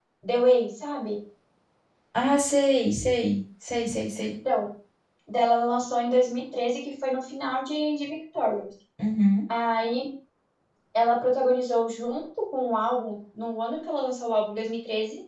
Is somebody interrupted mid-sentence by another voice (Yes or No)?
No